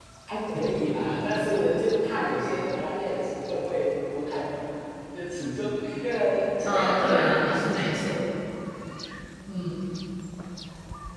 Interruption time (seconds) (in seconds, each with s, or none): 6.7 s